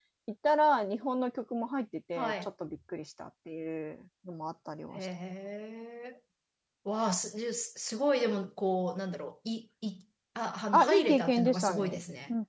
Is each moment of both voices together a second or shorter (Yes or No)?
No